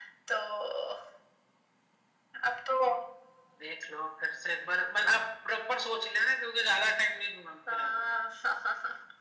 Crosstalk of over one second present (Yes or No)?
No